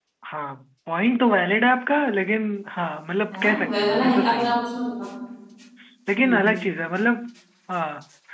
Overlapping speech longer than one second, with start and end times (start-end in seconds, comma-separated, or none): 3.3-4.6